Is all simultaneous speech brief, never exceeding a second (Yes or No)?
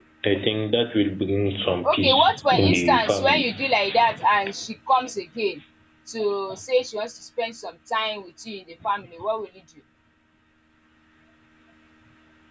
No